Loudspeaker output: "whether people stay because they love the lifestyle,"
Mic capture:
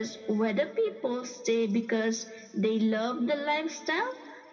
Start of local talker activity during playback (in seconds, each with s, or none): none